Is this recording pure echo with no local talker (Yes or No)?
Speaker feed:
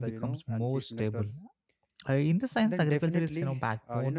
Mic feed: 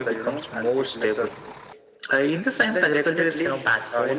Yes